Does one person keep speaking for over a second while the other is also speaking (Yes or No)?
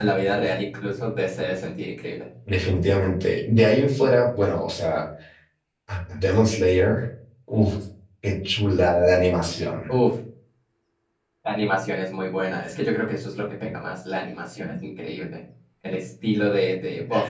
No